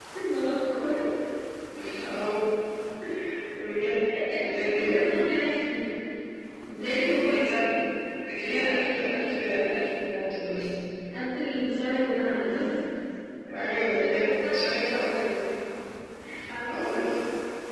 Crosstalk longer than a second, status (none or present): present